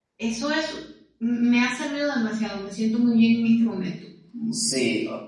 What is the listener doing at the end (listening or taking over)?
taking over